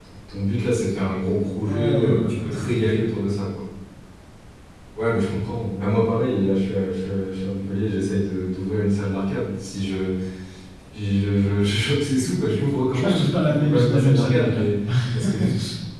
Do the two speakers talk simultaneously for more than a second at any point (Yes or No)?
Yes